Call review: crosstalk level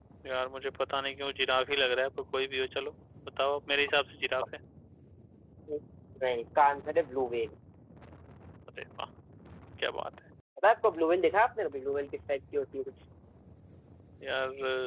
none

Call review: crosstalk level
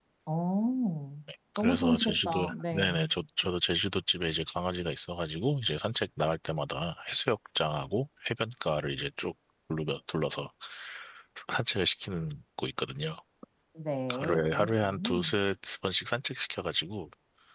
present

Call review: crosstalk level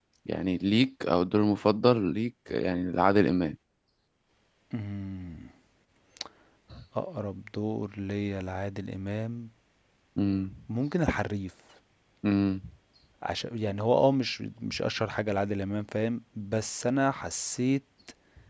none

